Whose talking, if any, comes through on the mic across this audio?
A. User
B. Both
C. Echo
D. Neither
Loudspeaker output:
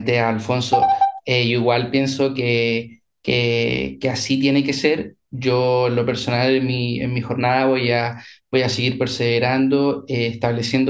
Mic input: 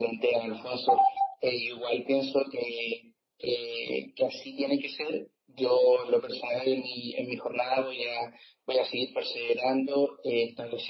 C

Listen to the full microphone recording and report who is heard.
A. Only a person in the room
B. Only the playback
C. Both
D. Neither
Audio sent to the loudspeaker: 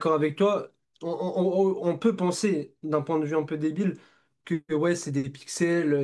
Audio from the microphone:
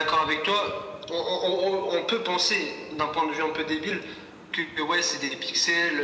B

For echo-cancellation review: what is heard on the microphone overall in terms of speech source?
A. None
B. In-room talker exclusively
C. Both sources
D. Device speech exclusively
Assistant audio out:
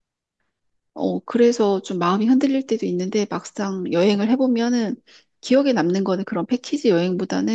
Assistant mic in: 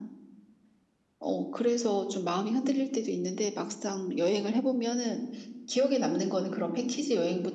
D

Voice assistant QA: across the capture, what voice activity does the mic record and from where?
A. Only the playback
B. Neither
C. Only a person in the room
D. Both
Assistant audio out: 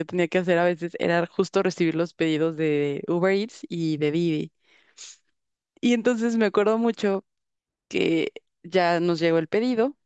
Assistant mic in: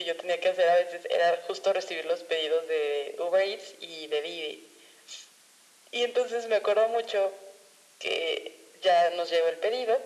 A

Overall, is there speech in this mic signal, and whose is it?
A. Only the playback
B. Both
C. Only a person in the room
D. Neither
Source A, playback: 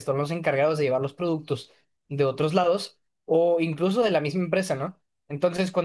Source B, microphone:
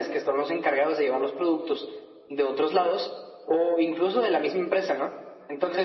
A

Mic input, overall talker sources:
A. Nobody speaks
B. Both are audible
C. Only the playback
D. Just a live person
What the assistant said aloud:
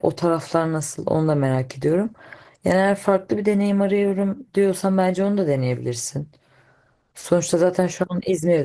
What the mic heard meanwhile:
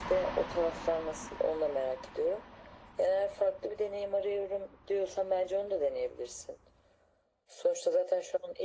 C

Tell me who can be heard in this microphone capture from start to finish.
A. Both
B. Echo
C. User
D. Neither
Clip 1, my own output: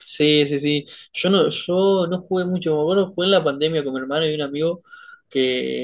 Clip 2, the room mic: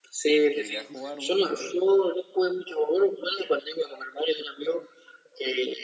A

